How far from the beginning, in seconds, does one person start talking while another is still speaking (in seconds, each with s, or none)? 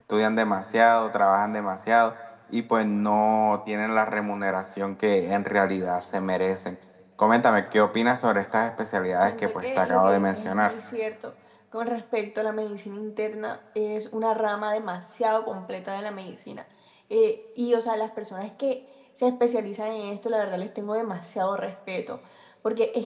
9.2 s